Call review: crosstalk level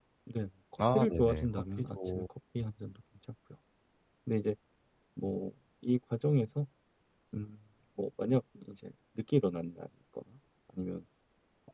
present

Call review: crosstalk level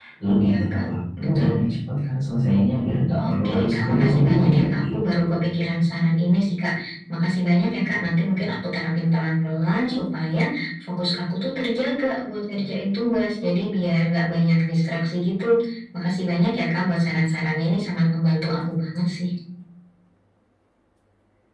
present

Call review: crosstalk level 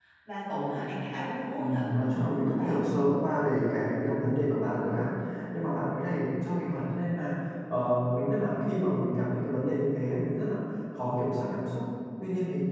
present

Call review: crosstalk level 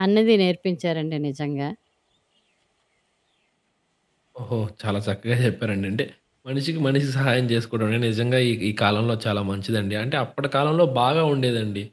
none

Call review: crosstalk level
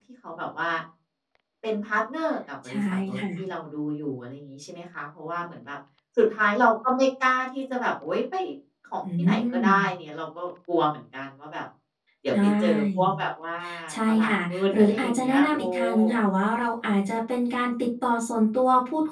present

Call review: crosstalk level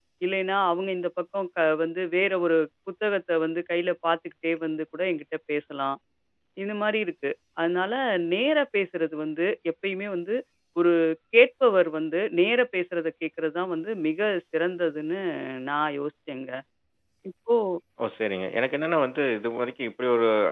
none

